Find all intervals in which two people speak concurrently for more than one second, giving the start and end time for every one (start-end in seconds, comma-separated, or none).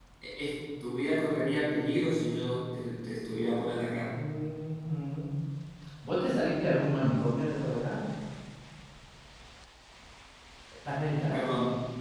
none